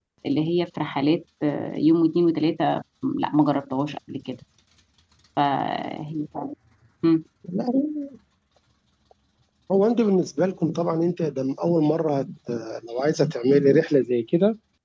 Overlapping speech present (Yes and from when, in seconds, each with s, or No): No